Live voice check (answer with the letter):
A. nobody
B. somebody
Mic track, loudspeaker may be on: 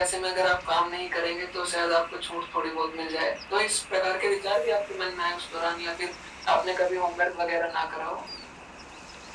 A